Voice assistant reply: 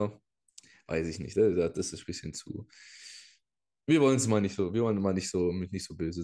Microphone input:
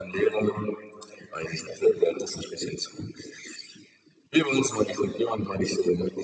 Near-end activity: none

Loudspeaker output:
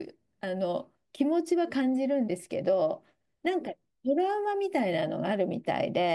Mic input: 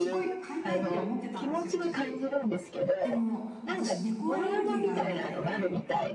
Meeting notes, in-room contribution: present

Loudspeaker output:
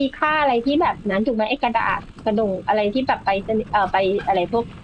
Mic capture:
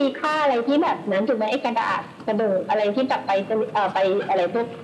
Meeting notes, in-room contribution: none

